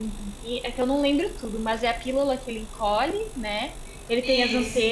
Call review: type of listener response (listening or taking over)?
listening